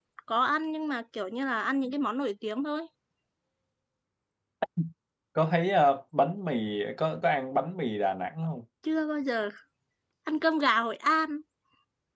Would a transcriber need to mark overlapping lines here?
No

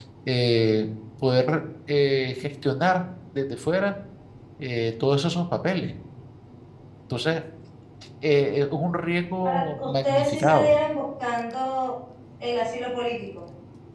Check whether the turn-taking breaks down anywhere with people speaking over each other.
Yes, from 9.4 s

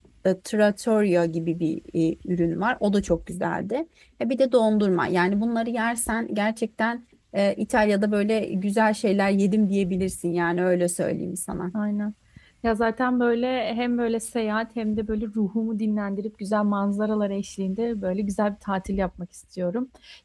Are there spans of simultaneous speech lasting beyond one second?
No

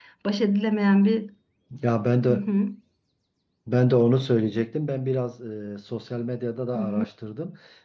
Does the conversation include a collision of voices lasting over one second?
No

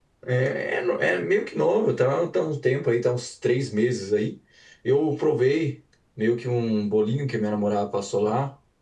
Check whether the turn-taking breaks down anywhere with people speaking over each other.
No

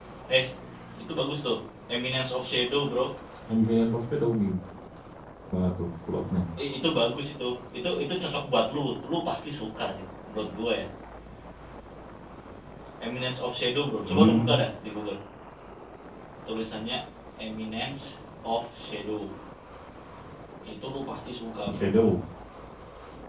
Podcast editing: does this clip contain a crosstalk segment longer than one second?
No

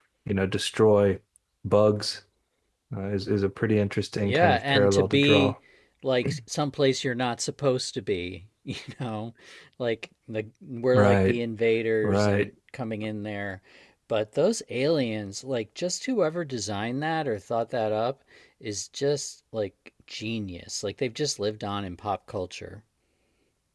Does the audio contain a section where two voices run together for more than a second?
Yes, from 4.2 s

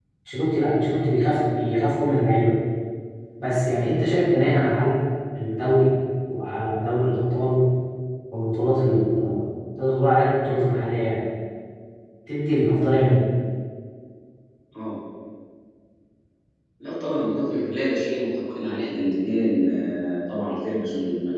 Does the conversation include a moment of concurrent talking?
No

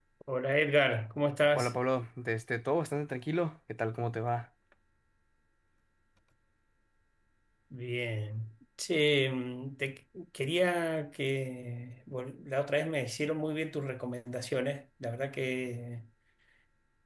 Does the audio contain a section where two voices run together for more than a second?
No

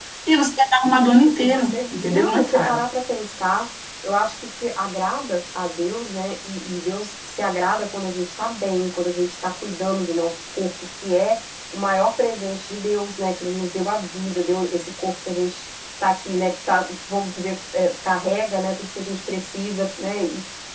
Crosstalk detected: Yes, from 1.2 s

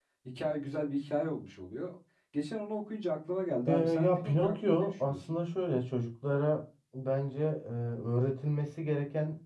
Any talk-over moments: Yes, from 3.7 s

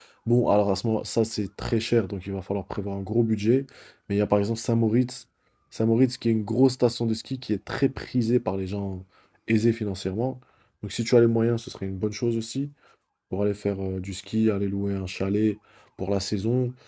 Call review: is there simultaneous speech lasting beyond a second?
No

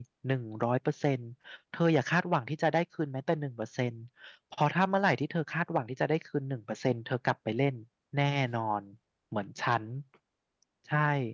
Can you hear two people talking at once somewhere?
No

